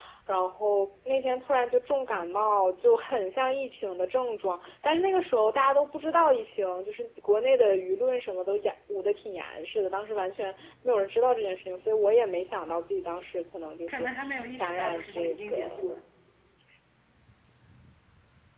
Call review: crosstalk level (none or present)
present